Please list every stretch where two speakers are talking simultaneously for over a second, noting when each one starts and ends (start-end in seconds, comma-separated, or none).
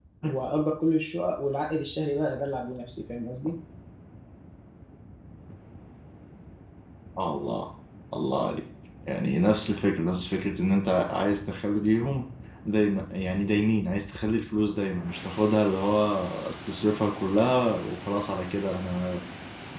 none